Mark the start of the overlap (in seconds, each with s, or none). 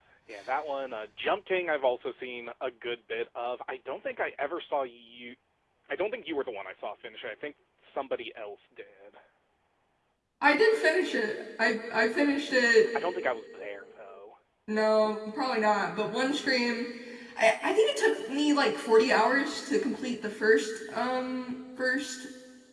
none